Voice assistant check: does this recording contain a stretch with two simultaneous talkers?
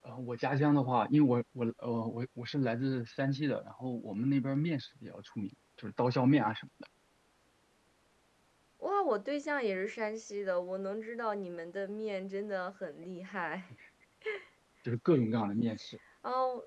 No

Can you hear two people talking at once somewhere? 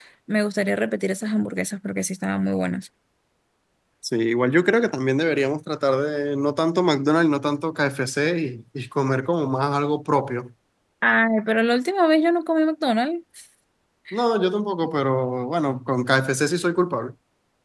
No

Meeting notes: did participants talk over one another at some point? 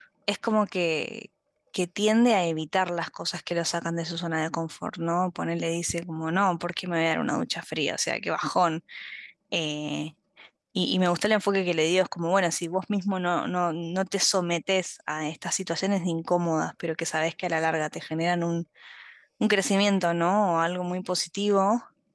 No

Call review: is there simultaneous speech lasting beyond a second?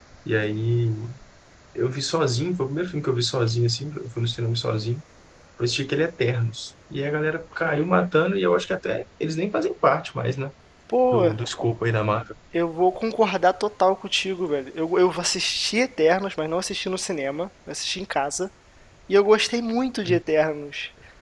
No

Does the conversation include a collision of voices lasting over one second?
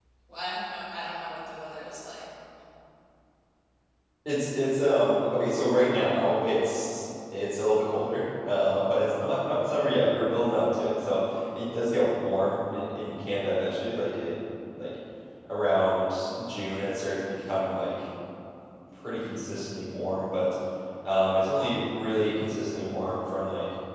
No

